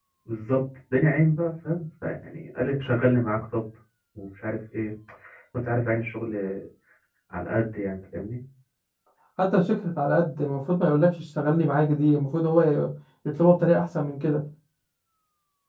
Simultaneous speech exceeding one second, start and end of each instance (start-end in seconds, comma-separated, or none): none